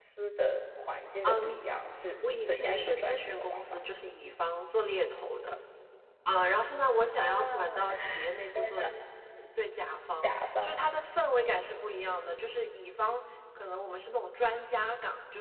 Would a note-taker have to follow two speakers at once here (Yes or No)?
Yes